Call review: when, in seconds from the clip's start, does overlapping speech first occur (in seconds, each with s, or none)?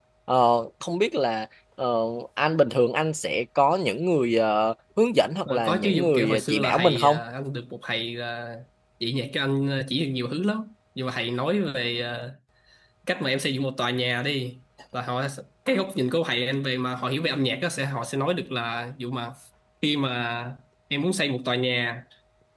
5.5 s